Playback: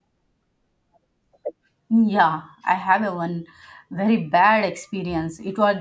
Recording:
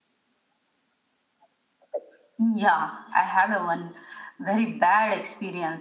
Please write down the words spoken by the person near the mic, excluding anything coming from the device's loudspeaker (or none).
none